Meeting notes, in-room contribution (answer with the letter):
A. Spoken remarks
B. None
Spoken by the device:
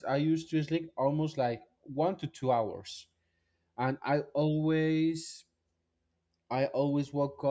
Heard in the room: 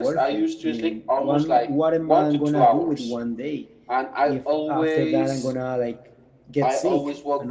A